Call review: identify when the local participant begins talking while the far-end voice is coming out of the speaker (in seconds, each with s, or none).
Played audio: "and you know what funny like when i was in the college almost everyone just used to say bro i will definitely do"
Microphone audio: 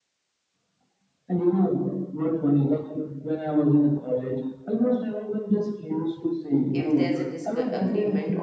6.7 s